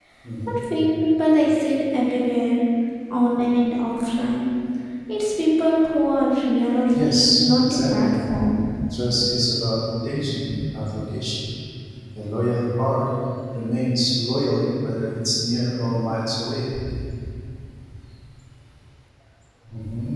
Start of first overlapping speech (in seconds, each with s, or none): 6.9 s